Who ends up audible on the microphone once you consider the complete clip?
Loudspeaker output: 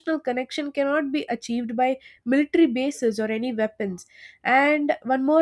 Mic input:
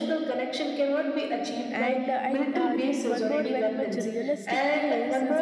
both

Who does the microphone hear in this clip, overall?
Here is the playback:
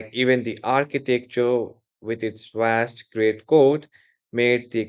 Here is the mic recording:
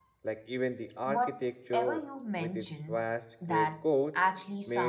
both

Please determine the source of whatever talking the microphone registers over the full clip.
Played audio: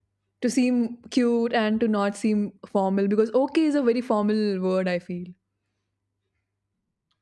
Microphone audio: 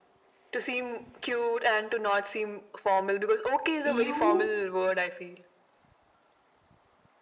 both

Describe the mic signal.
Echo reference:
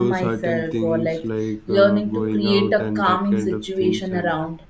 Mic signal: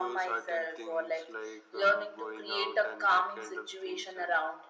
echo only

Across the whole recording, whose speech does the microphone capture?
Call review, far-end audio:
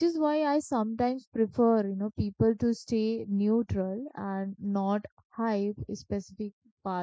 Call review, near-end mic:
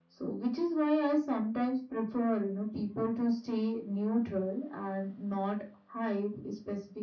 echo only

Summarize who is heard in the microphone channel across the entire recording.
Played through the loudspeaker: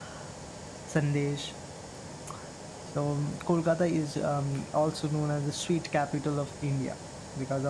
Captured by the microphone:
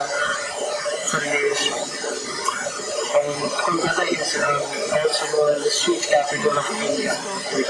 both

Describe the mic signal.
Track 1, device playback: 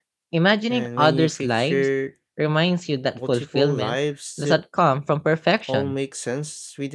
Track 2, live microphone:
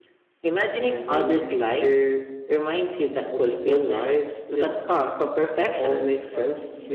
both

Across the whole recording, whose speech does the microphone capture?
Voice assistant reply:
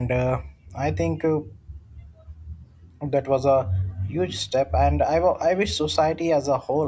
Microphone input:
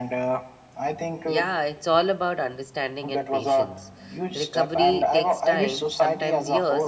both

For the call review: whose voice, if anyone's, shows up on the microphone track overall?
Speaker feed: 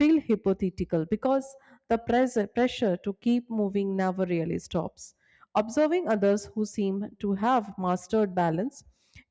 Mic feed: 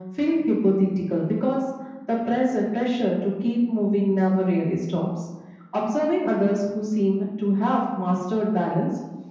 echo only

